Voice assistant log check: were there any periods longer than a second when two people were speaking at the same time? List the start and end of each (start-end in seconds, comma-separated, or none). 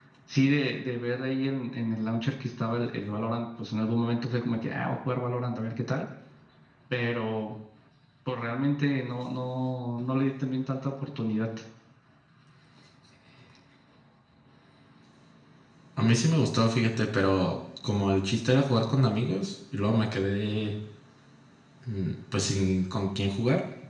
none